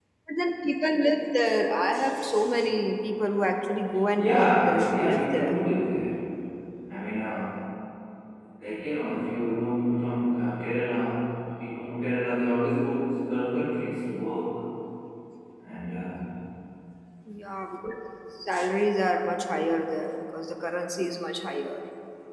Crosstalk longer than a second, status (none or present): present